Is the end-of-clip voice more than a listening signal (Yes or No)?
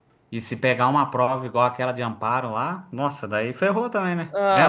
Yes